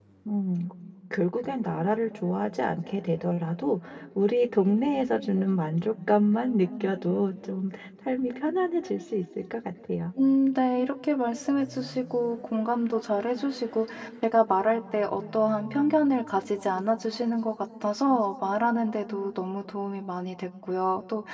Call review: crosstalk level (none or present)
none